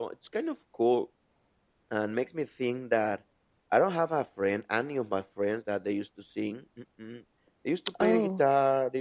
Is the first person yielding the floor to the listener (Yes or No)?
No